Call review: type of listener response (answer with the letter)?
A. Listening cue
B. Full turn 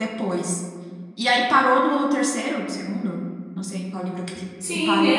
B